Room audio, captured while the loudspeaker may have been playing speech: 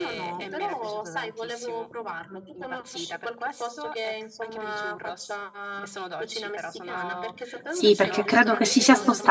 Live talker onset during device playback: 8 s

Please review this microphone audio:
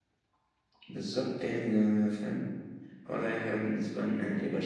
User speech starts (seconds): none

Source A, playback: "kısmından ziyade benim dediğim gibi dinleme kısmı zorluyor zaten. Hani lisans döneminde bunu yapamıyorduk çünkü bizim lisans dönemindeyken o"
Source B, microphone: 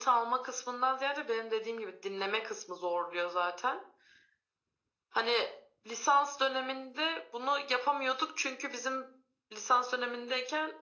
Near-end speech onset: none

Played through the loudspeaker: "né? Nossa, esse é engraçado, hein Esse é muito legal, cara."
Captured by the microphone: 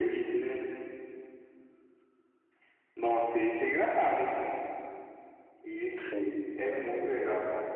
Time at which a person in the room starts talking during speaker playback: 6 s

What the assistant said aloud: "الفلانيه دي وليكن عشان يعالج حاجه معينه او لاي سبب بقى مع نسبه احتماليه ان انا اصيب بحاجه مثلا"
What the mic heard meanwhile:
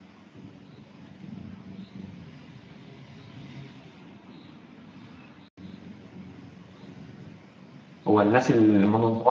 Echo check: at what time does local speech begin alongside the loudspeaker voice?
8 s

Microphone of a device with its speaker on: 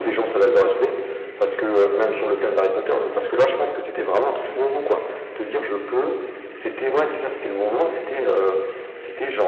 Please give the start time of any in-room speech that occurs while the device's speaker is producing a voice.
none

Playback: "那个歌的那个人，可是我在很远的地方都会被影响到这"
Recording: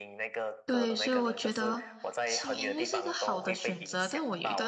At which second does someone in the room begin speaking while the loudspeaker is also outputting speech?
1 s

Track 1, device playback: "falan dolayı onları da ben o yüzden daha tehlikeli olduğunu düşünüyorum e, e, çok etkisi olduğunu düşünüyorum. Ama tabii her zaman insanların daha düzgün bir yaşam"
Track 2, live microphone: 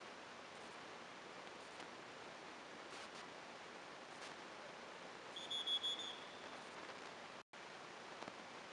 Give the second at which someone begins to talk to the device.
none

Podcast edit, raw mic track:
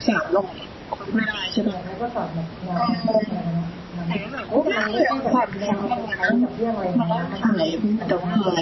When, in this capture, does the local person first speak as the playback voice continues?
2 s

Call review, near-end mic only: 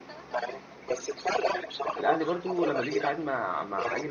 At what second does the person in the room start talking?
2 s

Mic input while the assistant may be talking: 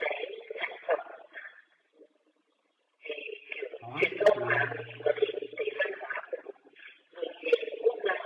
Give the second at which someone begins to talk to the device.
4 s

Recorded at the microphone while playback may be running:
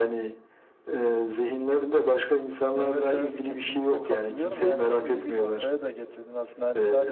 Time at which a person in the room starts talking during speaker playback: 3 s

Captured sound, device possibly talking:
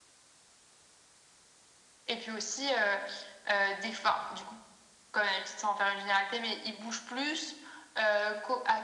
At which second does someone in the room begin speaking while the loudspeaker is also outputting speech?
none

